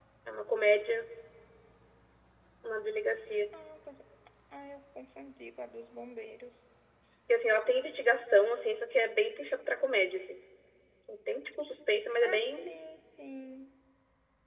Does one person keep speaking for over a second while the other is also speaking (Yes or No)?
No